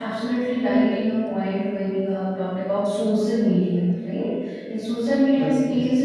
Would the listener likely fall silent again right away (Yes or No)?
Yes